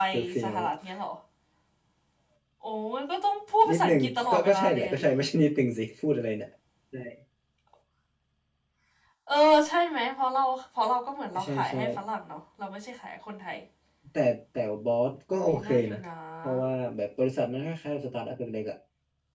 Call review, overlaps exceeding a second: present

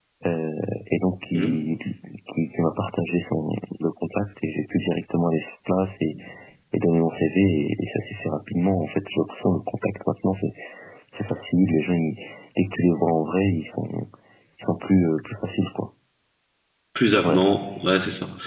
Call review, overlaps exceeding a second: none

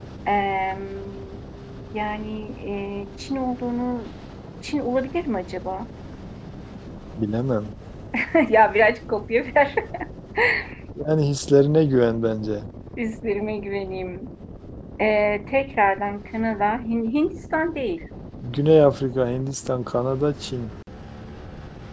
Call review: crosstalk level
none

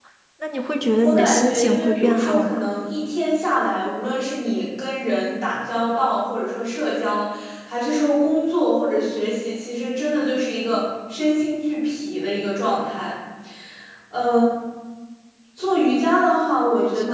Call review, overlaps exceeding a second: present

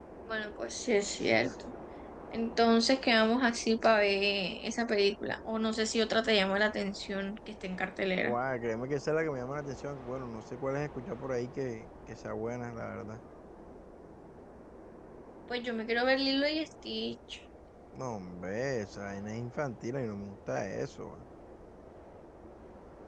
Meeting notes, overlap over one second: none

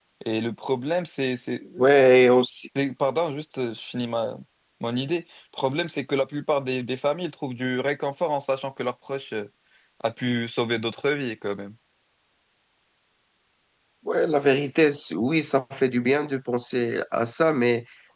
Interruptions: none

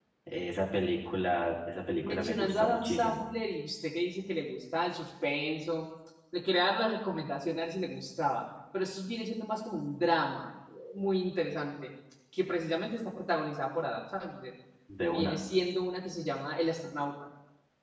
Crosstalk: present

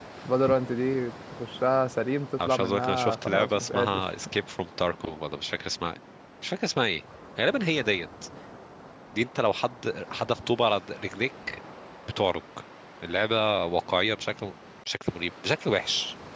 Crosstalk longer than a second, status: present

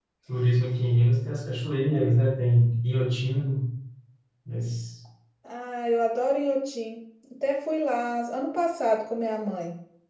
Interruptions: none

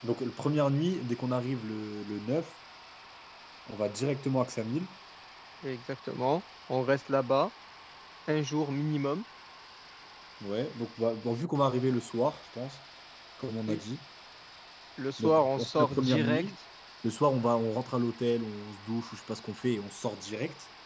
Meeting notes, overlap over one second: present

